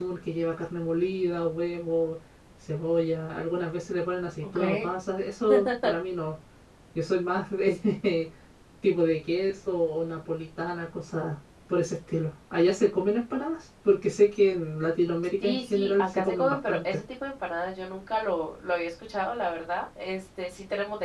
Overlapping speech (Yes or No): Yes